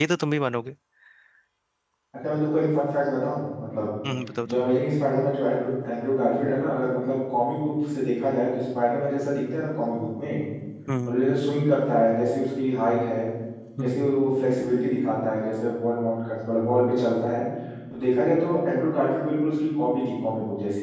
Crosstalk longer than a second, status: none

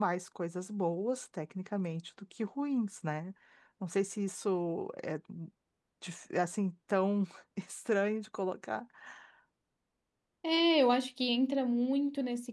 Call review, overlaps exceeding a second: none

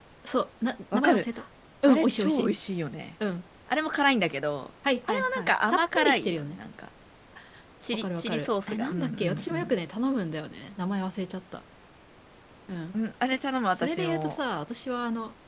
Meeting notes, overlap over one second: present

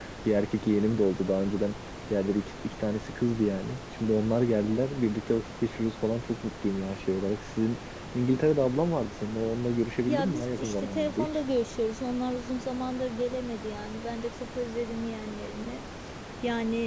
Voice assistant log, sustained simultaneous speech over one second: present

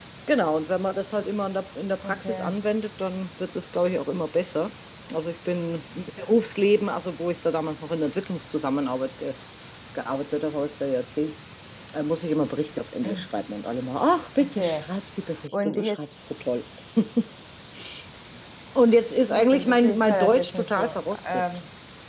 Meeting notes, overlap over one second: present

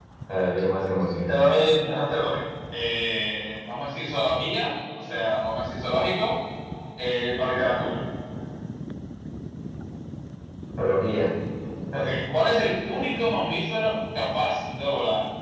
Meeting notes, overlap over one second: none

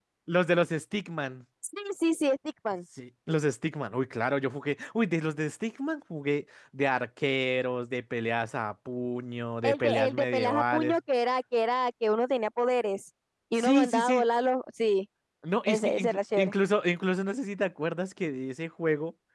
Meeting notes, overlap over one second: present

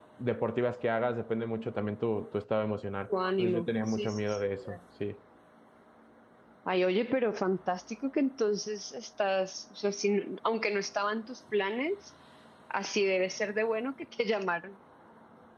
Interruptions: present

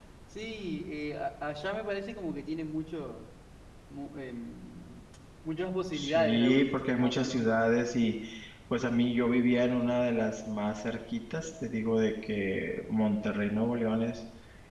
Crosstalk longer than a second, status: present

